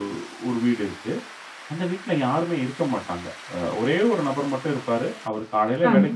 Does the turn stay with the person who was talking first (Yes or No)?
Yes